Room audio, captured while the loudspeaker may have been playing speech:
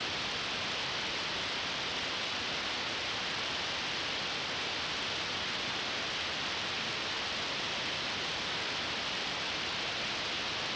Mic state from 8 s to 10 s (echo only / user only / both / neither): neither